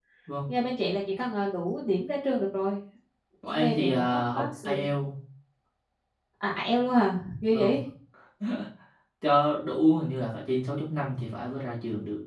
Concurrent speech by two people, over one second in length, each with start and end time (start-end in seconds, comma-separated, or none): 3.5-4.9